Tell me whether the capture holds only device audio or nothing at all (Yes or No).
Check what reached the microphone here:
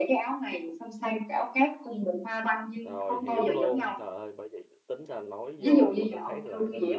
No